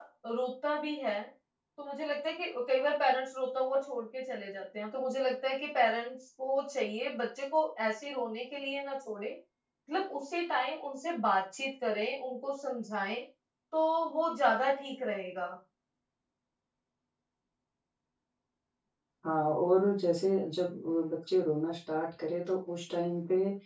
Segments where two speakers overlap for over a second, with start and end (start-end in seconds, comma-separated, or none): none